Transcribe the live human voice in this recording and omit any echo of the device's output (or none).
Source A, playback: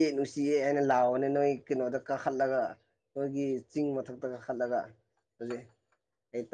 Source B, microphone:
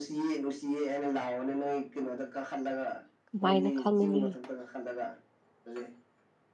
ꯀꯃꯥꯏꯅ ꯈꯪꯒꯅꯤ